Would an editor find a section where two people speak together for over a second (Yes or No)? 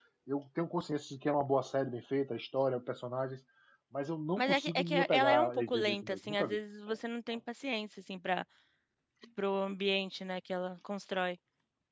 Yes